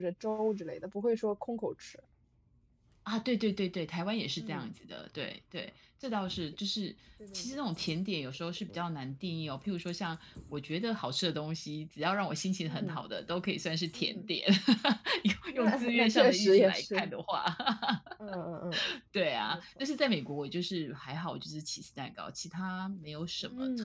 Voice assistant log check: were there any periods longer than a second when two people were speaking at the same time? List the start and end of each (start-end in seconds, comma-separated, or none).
15.5-17.1